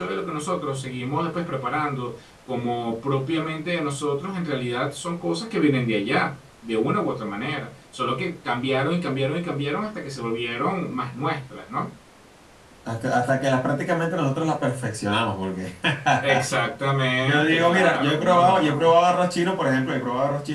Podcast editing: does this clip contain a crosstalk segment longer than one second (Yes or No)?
Yes